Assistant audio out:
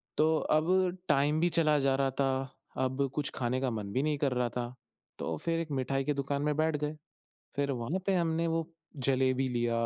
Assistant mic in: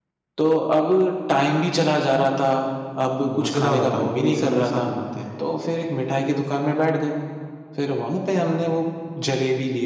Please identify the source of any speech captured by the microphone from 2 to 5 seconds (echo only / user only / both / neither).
both